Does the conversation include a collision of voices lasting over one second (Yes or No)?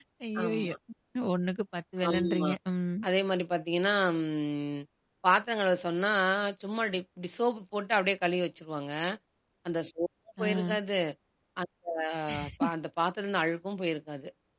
No